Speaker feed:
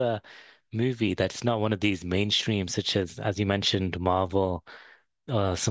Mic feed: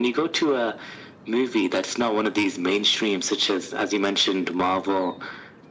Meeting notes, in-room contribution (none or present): none